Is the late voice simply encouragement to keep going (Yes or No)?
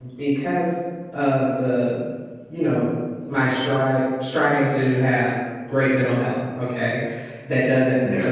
Yes